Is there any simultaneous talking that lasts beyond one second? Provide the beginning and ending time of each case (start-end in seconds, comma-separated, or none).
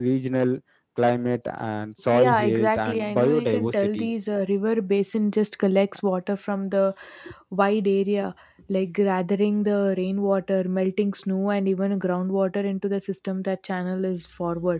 2.1-4.1